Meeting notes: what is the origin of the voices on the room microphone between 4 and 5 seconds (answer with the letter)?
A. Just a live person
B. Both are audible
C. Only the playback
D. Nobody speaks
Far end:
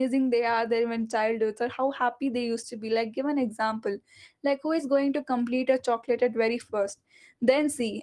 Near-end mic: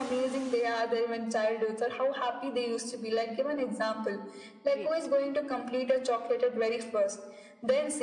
B